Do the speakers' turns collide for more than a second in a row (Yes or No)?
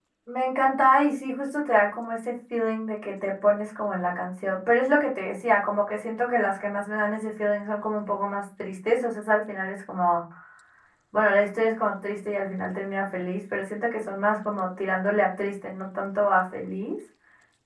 No